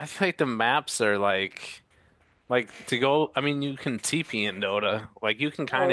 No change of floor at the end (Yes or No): No